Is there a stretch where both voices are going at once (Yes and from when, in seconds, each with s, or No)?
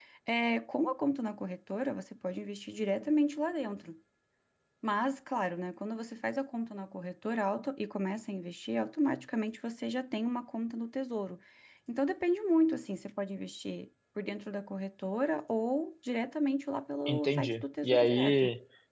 Yes, from 17.1 s